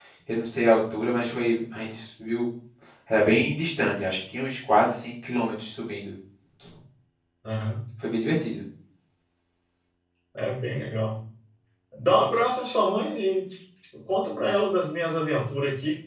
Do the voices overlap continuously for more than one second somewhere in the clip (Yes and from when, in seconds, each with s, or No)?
No